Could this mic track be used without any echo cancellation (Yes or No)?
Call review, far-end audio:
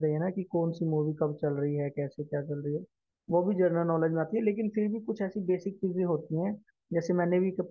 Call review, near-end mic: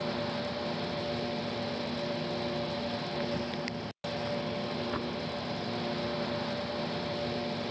Yes